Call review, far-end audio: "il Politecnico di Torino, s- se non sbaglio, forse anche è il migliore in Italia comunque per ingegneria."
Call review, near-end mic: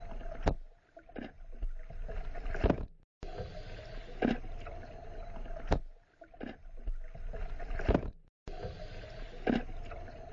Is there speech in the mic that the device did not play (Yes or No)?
No